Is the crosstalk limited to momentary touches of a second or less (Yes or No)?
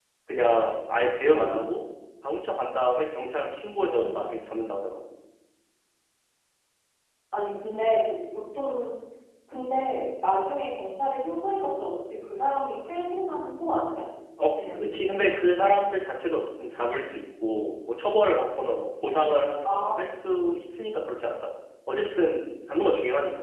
Yes